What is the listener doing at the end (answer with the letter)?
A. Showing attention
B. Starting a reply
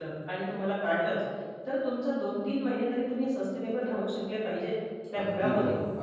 B